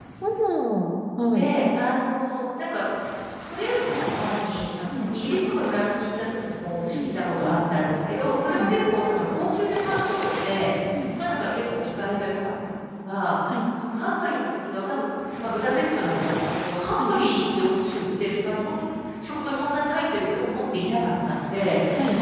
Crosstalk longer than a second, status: none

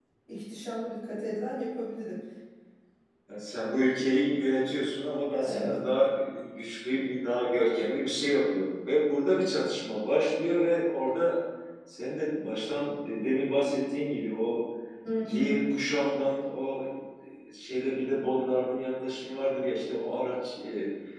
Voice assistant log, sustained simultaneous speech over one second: none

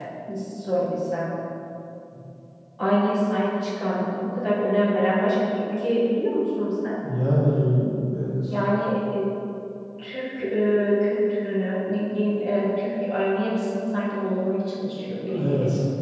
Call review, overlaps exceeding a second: none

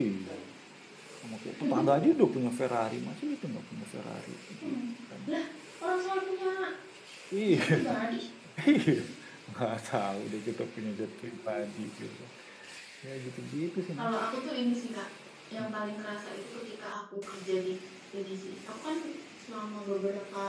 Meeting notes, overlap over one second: none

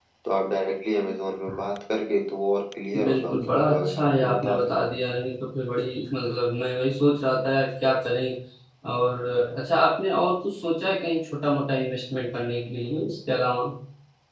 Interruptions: present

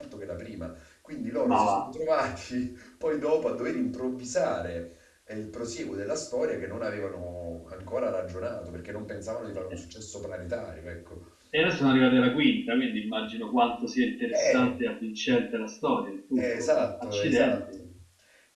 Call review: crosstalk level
present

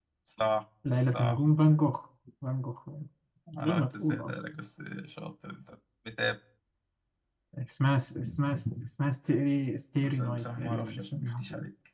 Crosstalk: present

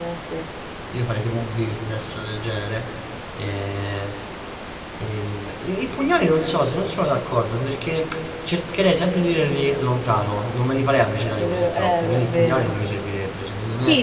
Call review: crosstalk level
present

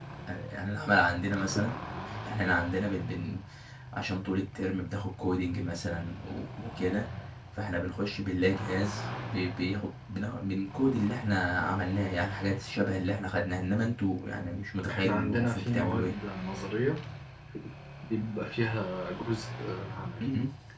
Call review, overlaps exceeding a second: present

